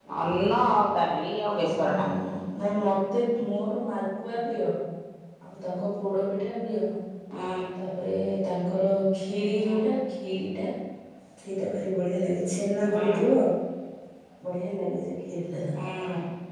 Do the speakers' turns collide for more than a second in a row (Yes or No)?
No